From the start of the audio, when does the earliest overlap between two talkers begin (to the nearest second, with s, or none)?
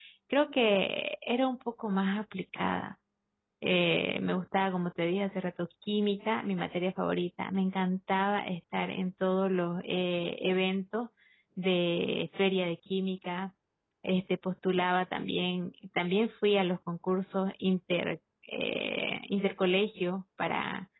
none